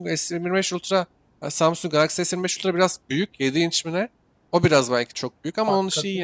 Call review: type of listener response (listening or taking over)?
taking over